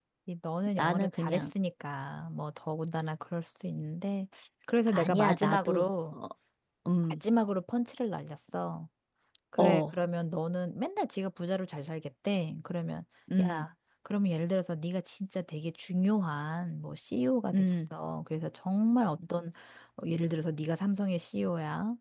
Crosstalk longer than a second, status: present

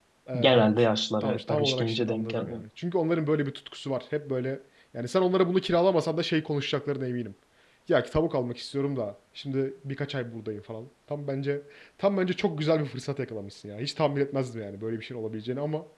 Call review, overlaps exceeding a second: present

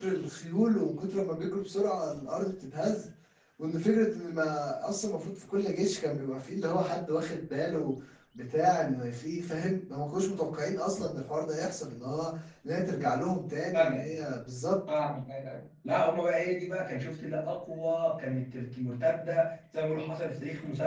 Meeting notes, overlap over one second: none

